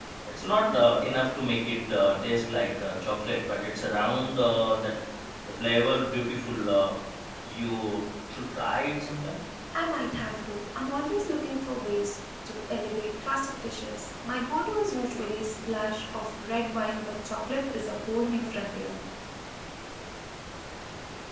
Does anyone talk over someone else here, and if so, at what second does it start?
none

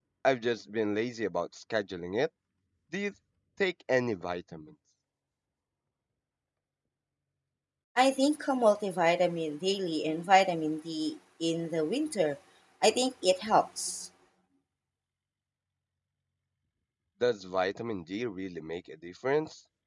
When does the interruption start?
none

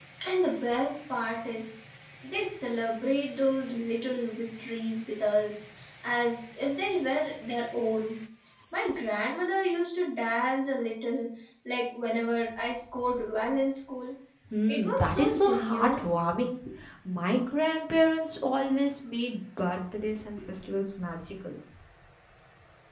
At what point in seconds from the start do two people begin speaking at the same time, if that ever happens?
14.7 s

